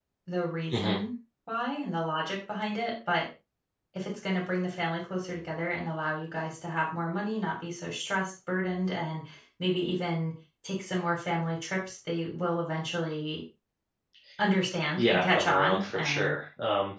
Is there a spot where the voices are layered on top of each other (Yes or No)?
Yes